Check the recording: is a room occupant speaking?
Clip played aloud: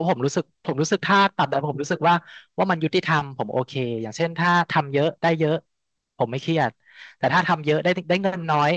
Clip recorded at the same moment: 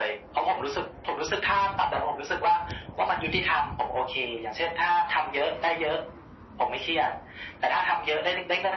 No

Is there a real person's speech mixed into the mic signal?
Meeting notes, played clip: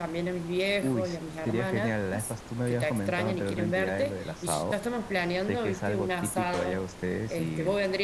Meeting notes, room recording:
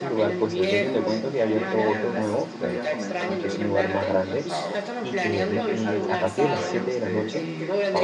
Yes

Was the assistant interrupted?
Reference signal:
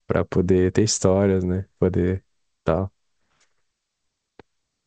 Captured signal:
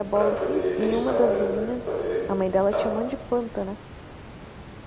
Yes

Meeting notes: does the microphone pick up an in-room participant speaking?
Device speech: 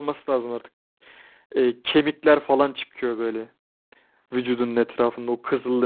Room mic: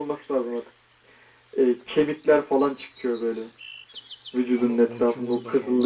Yes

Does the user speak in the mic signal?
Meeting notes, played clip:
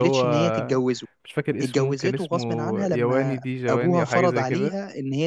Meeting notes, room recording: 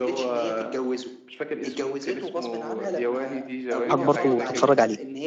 Yes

